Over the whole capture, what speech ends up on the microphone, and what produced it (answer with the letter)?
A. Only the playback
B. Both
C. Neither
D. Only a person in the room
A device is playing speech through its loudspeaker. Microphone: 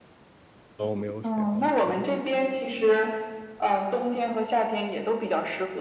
B